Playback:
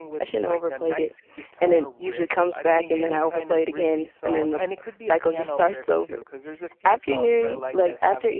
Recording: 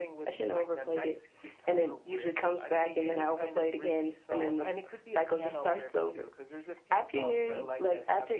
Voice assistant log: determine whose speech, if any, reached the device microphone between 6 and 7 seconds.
echo only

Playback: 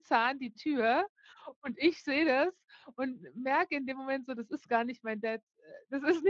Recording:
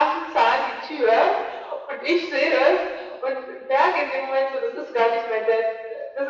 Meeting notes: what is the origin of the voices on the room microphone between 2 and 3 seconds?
echo only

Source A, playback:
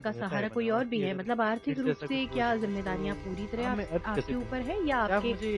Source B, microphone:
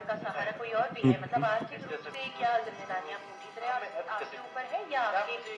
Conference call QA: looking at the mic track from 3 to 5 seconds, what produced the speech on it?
echo only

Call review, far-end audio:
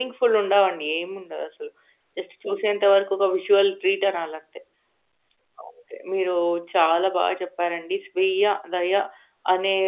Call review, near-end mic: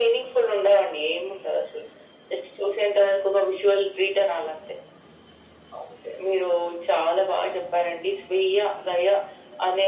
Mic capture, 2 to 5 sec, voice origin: echo only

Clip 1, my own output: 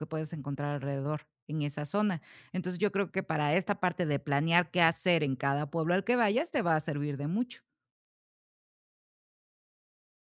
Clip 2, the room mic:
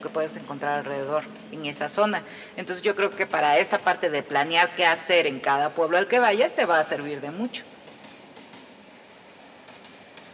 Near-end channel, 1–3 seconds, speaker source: echo only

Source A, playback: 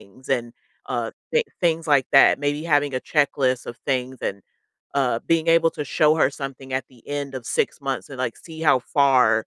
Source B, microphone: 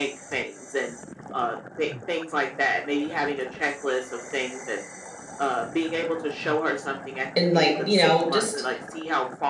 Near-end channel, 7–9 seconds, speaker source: both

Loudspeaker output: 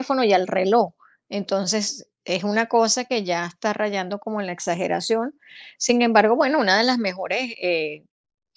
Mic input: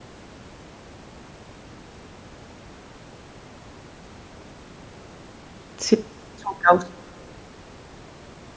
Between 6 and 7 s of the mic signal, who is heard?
user only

